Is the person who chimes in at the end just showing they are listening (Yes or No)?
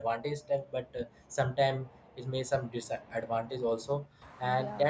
Yes